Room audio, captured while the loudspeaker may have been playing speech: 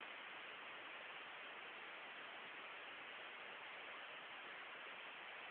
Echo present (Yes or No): No